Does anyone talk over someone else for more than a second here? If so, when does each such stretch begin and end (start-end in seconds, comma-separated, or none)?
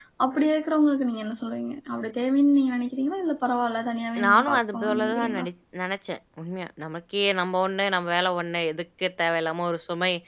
4.2-5.4